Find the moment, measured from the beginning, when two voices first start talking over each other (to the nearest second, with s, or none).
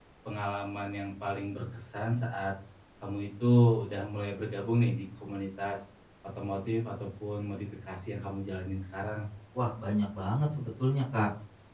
none